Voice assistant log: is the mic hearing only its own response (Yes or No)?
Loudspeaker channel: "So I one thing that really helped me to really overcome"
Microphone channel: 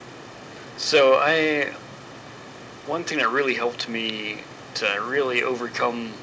Yes